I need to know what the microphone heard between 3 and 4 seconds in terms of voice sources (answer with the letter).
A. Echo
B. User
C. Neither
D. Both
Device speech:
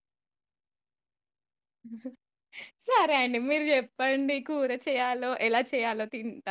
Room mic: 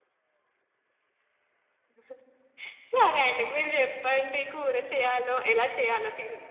A